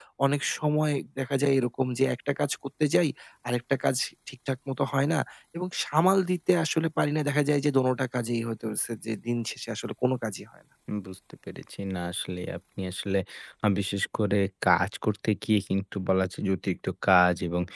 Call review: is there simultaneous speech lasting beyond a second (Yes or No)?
No